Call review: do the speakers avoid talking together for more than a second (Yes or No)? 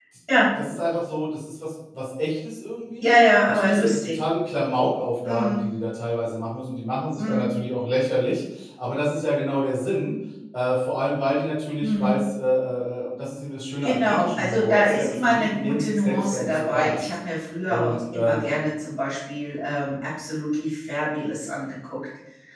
No